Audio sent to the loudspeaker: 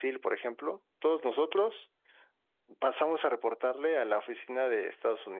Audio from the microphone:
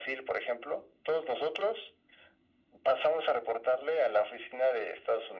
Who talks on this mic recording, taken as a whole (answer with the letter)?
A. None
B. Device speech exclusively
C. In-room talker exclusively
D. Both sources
B